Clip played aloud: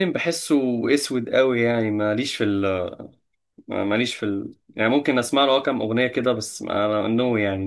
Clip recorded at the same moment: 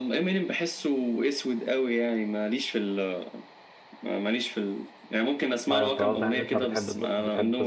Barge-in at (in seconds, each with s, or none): 5.7 s